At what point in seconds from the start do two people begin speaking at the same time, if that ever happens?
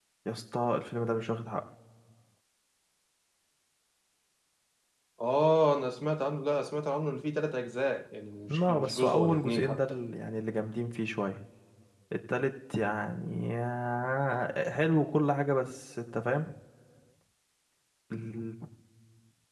8.5 s

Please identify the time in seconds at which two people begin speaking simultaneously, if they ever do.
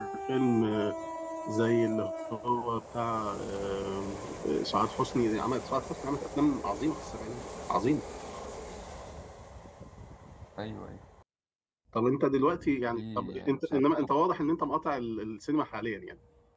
12.9 s

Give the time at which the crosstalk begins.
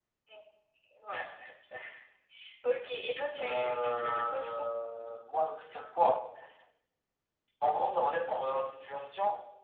3.4 s

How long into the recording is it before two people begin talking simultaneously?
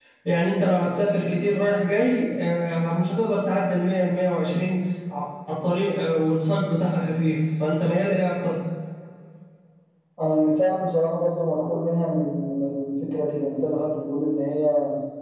none

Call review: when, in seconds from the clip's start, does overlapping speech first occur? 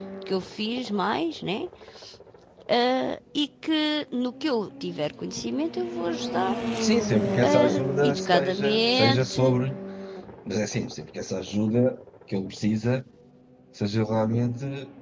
7.4 s

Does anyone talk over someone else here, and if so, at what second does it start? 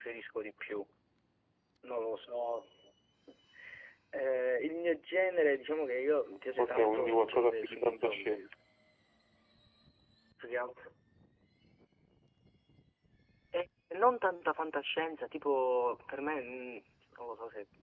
6.6 s

